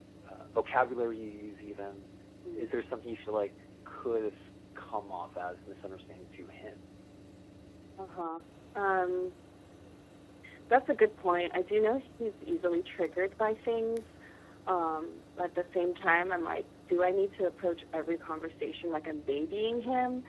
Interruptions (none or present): none